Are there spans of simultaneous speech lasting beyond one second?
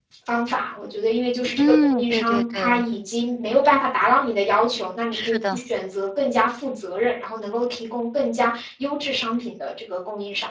Yes, from 1.5 s

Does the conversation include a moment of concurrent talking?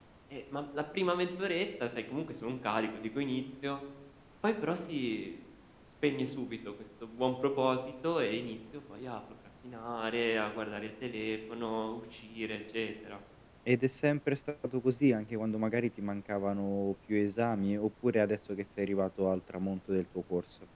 No

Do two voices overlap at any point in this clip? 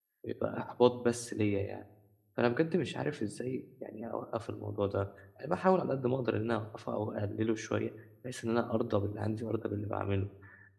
No

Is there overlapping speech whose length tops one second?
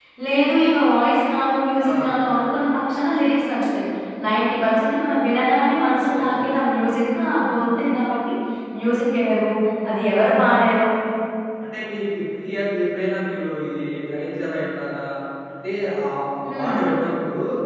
No

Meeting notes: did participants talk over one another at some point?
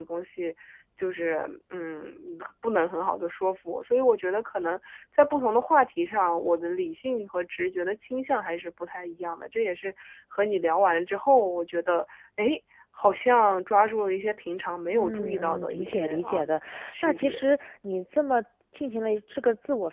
Yes, from 14.9 s

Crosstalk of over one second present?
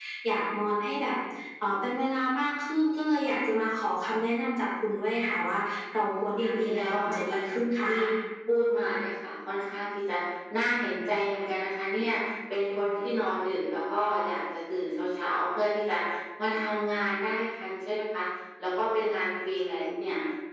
Yes, from 6.0 s

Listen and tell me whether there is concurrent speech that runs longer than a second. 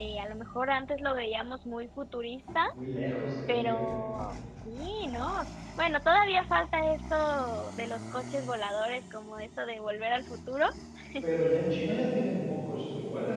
No

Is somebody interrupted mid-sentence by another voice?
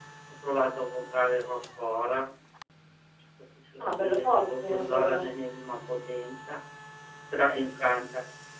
Yes, from 3.8 s

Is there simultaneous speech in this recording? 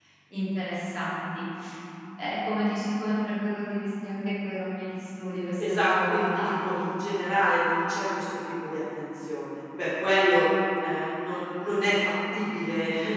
Yes, from 5.6 s

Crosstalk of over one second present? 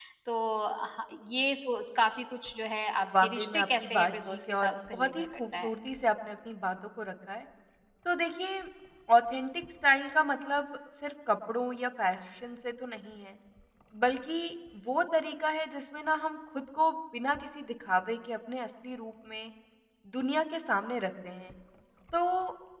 Yes, from 3.0 s

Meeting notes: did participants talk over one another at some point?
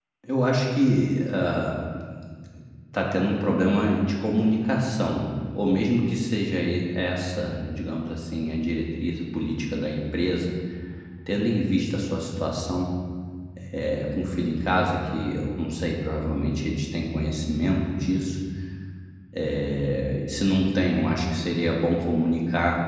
No

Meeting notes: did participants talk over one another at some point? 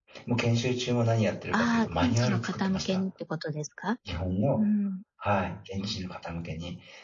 Yes, from 1.5 s

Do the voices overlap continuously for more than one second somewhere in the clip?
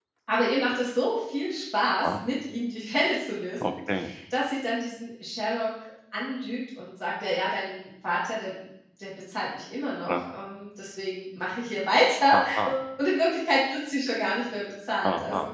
No

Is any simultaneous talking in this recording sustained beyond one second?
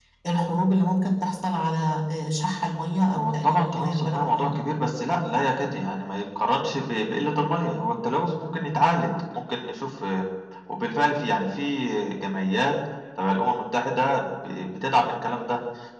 Yes, from 3.1 s

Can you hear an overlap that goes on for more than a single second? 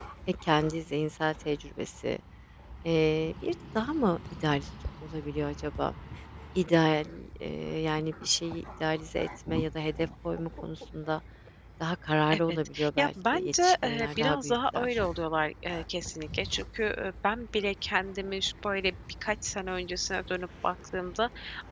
Yes, from 12.3 s

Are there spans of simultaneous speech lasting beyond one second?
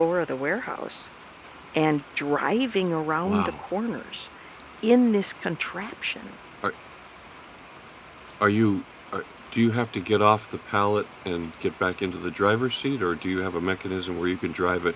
No

